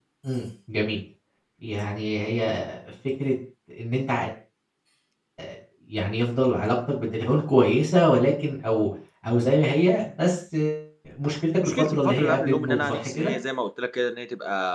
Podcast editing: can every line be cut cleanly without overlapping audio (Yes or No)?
No